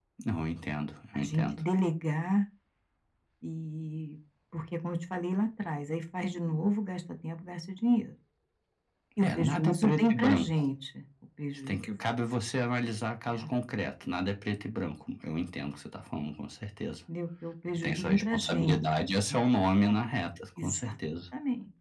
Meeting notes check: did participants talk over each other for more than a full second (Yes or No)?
Yes